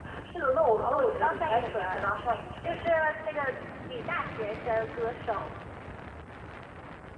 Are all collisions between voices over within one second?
No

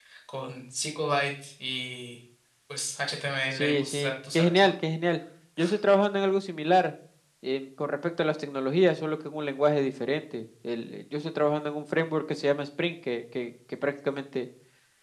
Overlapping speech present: Yes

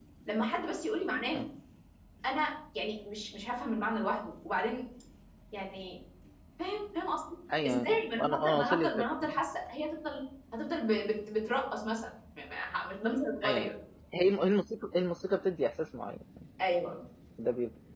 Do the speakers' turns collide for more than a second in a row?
Yes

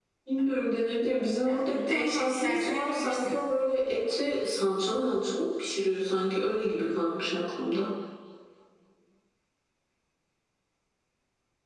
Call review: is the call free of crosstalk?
No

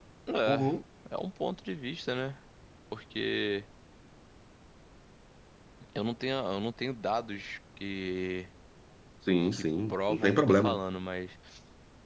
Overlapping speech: Yes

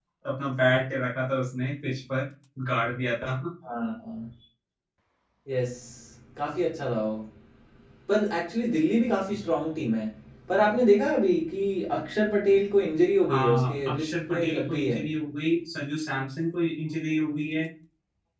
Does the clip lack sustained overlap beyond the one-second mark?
No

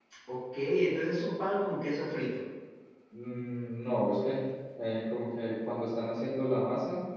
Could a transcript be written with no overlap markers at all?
Yes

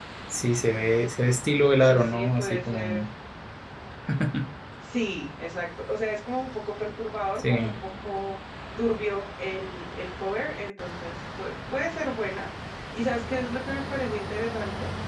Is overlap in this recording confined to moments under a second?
No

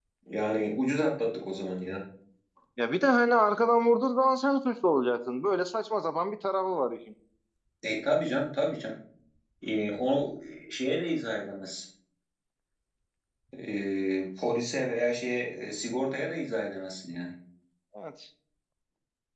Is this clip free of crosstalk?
Yes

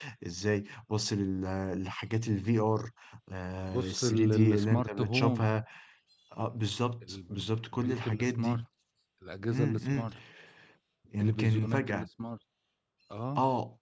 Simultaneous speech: Yes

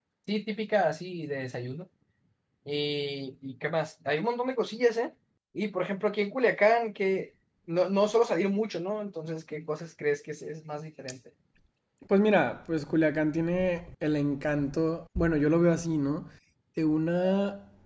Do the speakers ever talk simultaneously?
No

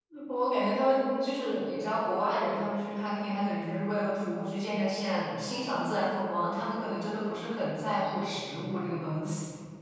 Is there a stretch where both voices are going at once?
No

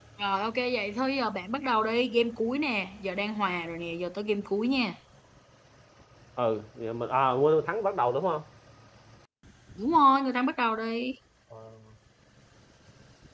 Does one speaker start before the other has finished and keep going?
No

